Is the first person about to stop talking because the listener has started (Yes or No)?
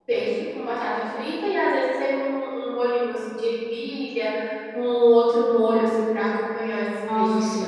Yes